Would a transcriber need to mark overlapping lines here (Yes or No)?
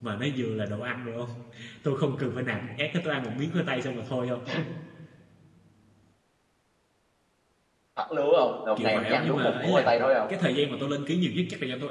Yes